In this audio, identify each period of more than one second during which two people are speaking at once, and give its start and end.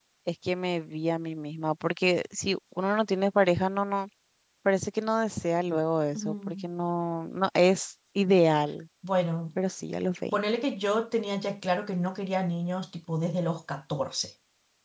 none

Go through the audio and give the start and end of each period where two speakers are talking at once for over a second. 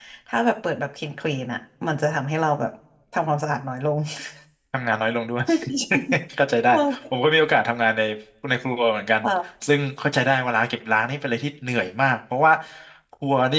none

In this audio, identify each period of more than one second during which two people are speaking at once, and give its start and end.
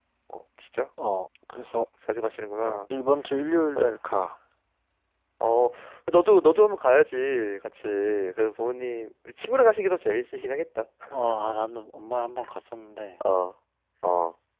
none

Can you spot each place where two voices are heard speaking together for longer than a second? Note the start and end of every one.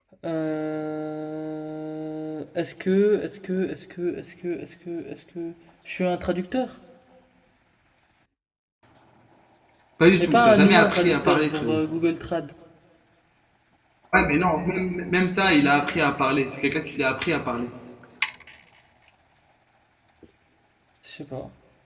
10.2-11.8

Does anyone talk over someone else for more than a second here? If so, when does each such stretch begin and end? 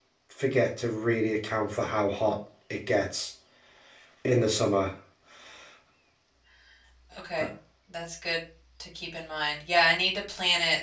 none

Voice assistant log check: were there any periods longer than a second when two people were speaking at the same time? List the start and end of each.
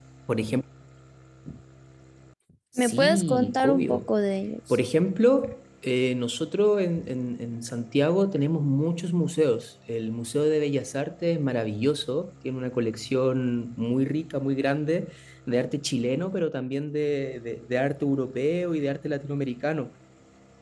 2.8-4.0

